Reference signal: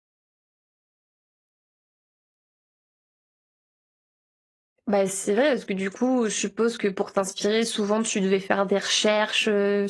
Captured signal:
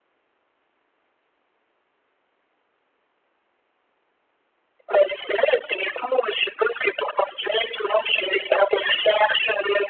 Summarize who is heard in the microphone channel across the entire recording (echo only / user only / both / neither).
echo only